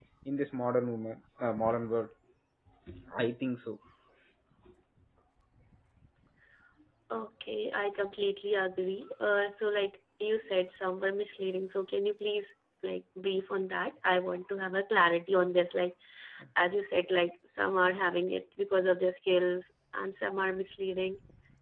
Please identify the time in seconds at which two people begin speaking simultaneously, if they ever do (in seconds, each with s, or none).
none